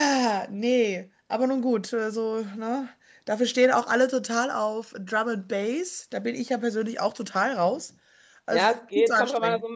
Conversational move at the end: taking over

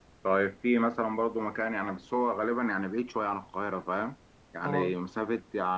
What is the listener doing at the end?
listening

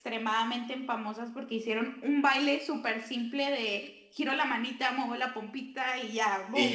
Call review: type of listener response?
taking over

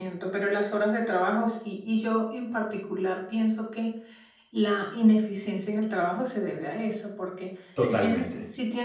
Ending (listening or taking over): listening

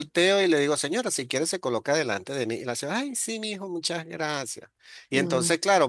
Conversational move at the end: listening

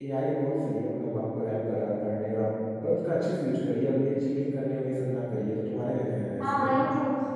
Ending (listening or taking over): taking over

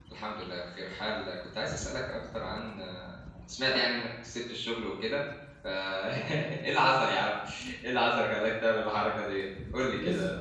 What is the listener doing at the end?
taking over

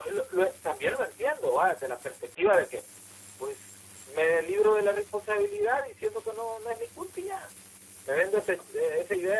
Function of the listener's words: listening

